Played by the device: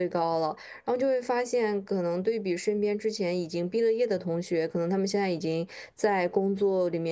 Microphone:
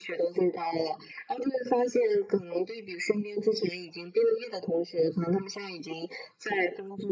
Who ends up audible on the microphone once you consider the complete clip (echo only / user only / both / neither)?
echo only